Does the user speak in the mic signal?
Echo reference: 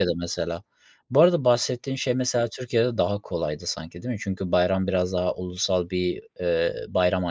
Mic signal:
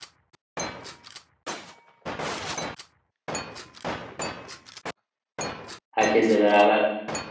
Yes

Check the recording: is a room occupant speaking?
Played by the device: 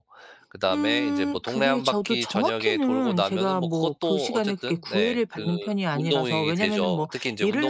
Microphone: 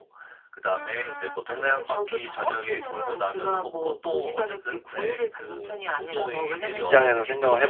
Yes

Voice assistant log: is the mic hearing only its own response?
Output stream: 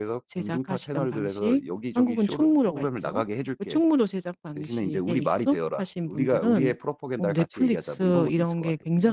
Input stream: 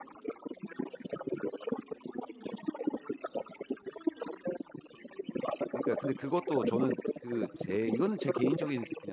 No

